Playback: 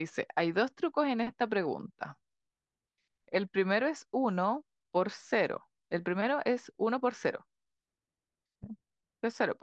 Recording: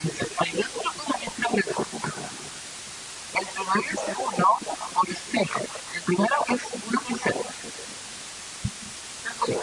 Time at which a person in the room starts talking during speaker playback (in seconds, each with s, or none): none